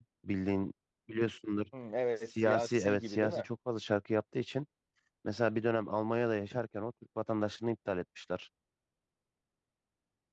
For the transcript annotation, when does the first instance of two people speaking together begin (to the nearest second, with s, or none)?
2 s